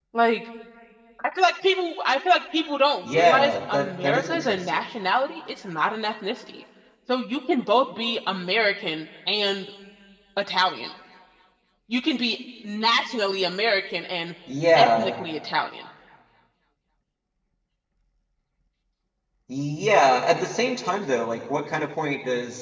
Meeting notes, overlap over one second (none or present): present